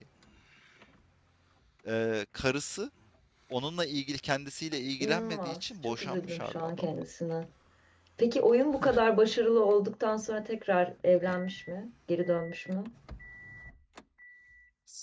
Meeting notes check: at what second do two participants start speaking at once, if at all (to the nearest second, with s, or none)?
5 s